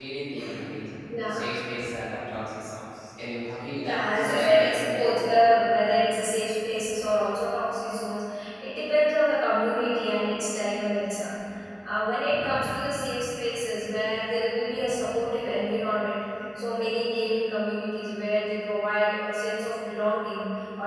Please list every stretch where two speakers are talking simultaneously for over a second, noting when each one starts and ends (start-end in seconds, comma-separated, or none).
3.8-5.0